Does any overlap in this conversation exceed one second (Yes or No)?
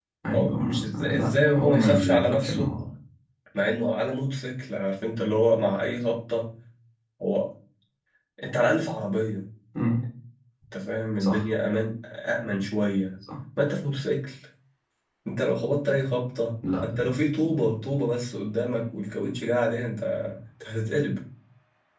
Yes